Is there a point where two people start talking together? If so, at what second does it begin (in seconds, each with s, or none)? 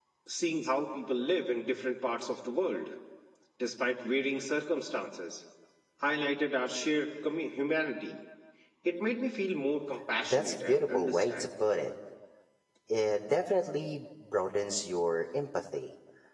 10.2 s